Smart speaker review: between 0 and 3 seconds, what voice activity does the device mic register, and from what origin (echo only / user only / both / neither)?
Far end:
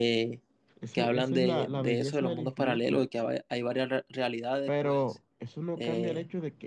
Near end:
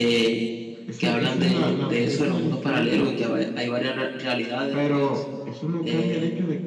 echo only